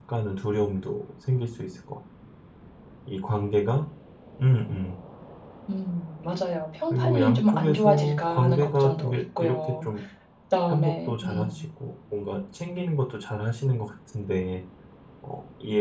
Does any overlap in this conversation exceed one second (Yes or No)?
Yes